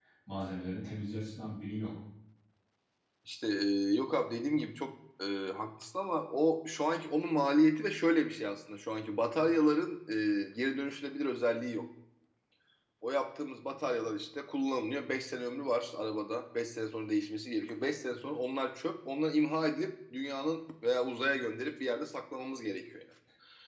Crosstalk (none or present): none